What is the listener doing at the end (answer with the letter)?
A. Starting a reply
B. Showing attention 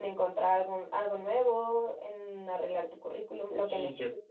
A